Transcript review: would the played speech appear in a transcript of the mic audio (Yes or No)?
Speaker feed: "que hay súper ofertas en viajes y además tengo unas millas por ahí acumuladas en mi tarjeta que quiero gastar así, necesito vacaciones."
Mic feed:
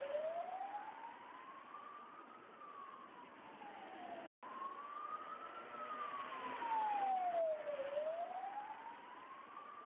No